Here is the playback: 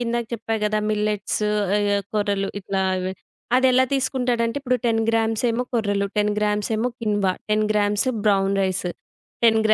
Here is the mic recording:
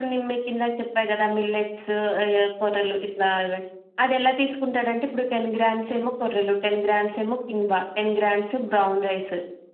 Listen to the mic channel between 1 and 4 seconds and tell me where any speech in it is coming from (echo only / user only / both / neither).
echo only